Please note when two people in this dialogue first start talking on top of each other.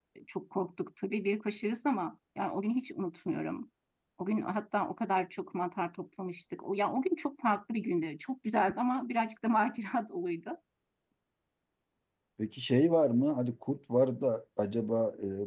none

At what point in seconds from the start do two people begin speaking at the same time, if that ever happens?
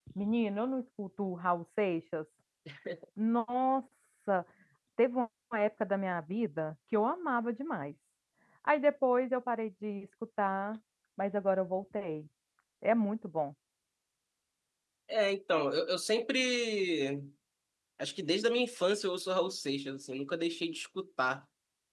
none

